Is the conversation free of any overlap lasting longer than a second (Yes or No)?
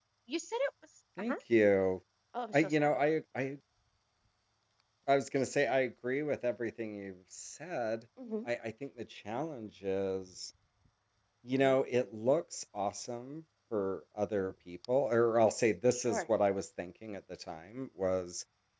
Yes